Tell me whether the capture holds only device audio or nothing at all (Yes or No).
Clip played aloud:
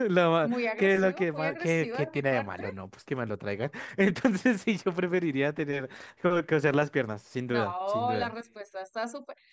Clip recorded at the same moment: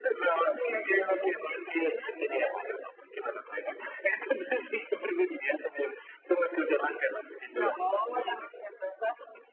Yes